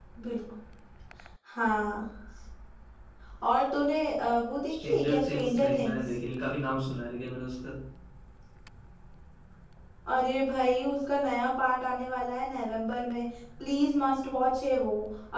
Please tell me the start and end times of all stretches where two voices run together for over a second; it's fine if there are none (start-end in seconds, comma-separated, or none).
4.7-6.0